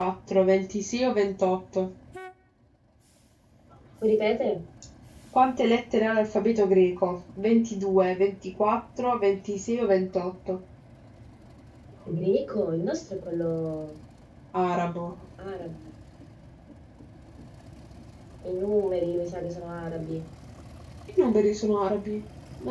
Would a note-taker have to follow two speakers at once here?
No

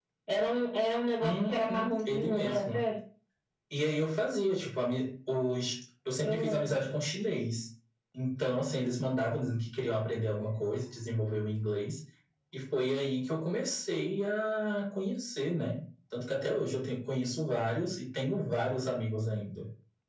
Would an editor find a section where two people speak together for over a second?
Yes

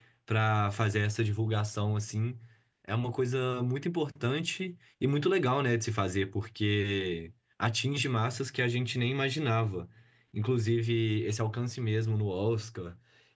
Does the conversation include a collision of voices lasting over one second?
No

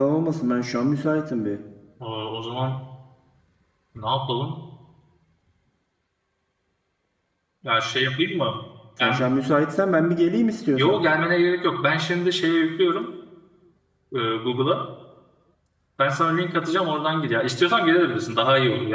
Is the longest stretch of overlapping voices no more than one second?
Yes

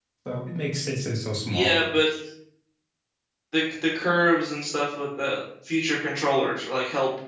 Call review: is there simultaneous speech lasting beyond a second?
No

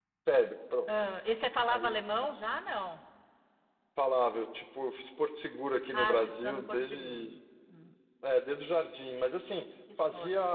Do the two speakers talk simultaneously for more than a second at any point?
Yes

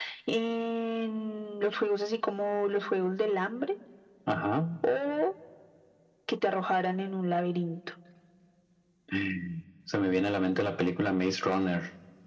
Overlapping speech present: No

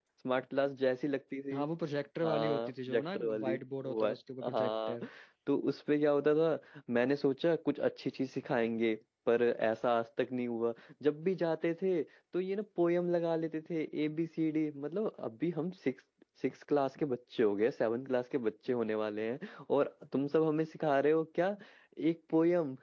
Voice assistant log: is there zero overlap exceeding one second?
No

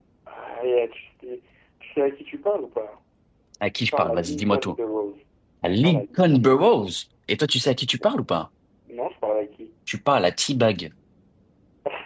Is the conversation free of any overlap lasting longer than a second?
No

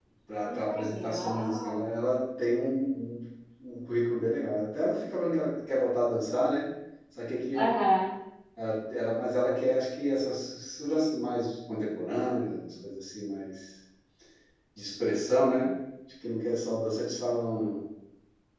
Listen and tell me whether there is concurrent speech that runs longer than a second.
Yes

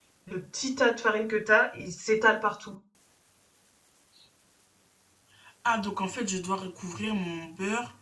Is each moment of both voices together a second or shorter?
Yes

